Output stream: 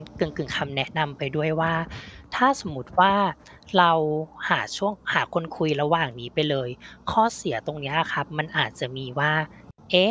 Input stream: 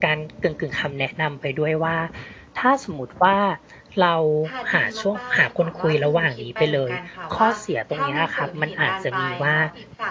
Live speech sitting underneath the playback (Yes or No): Yes